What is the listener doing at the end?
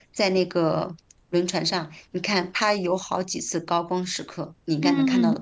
taking over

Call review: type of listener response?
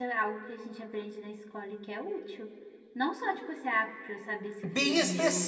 taking over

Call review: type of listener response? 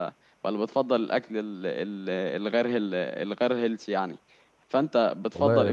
taking over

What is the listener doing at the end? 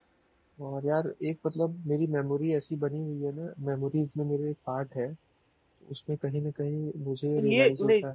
taking over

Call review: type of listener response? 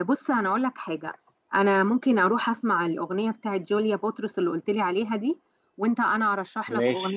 listening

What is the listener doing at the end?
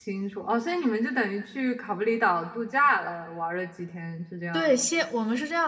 taking over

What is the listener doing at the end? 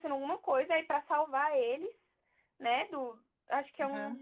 listening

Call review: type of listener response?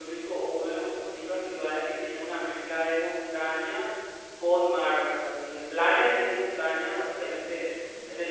listening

